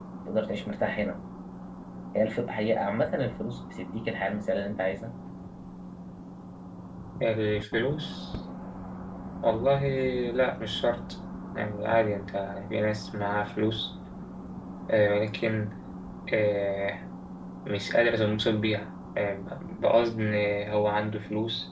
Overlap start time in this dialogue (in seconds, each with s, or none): none